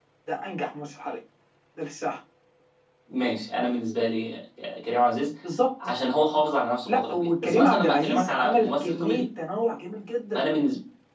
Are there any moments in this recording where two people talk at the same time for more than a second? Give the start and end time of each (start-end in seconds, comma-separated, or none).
6.9-9.2